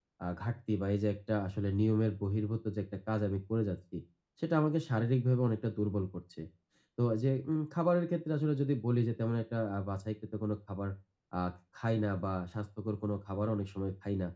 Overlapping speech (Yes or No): No